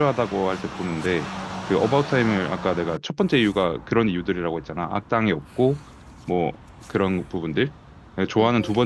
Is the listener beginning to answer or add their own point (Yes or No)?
No